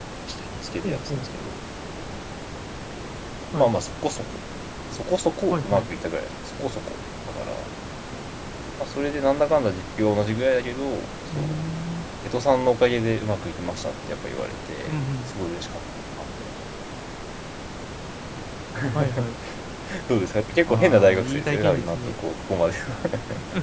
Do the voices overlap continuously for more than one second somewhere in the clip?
Yes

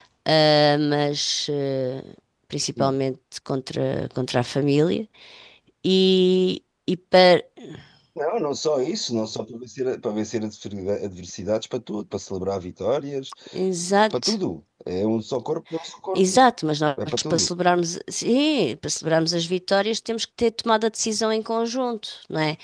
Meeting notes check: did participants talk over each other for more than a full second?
No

